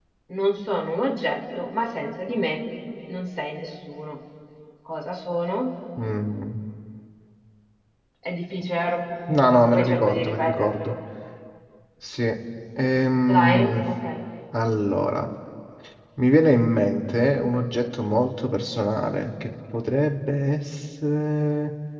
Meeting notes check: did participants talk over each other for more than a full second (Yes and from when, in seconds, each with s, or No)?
Yes, from 9.3 s